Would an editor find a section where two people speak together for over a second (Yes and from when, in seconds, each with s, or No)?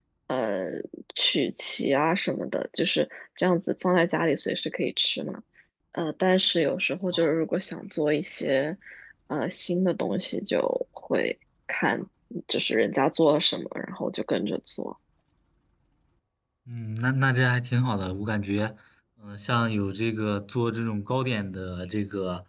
No